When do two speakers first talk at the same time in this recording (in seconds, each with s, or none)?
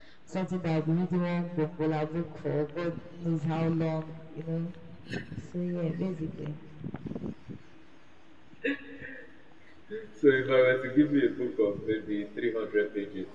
none